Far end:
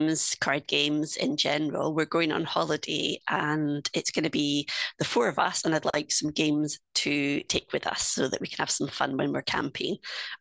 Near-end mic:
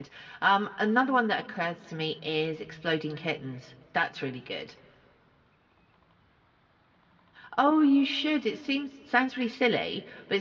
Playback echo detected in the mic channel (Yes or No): No